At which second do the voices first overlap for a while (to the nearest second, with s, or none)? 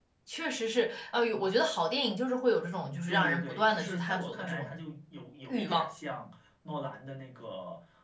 3 s